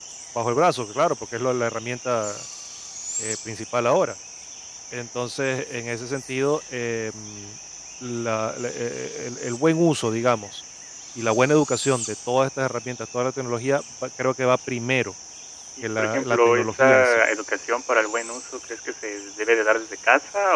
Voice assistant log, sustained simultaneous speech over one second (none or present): present